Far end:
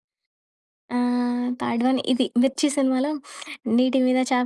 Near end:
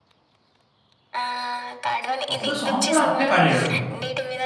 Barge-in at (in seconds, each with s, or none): 2.3 s